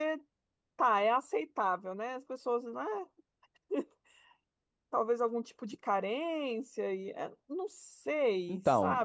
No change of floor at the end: No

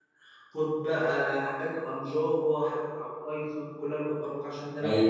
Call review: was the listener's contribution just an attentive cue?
No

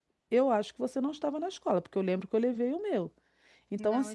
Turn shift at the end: No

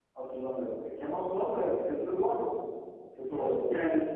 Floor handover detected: Yes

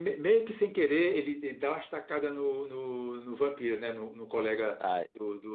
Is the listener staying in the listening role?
Yes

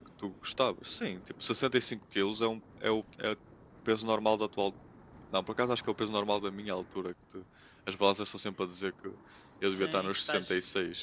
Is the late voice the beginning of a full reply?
Yes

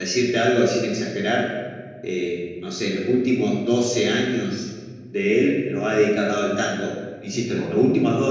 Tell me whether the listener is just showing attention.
Yes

